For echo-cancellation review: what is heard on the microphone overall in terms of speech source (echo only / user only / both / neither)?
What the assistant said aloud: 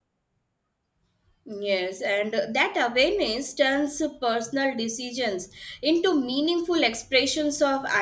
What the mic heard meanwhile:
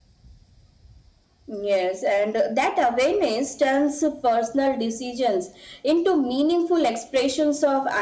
echo only